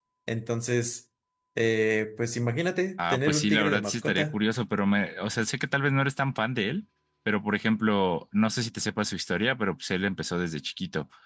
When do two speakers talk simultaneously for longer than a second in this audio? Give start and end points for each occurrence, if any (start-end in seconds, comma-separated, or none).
3.0-4.4